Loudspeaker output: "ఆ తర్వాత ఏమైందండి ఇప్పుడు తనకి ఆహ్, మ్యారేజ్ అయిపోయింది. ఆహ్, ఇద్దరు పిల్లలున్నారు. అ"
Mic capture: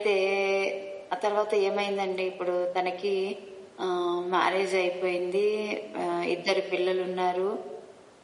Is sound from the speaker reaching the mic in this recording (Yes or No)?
Yes